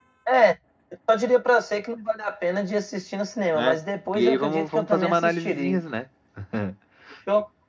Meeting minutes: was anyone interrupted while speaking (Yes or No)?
Yes